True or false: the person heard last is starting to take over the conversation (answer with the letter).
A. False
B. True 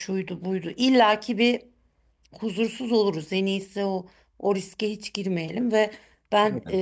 A